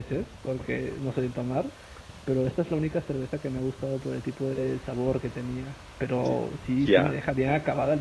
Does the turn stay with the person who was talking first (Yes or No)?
Yes